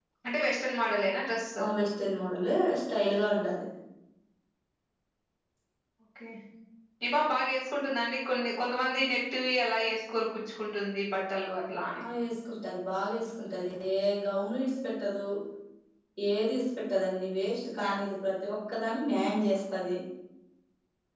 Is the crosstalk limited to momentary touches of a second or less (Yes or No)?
Yes